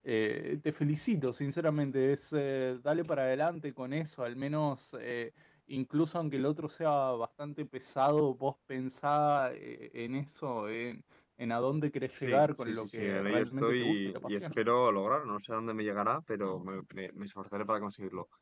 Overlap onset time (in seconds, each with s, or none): 12.2 s